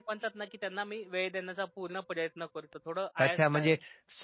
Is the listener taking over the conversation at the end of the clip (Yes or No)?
Yes